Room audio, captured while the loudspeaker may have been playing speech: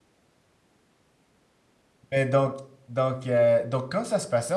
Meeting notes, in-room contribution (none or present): present